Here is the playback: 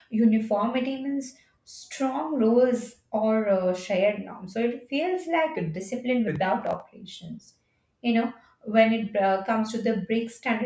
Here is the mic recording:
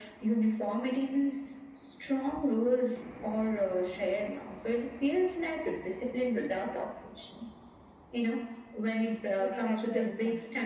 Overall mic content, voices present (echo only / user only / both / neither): both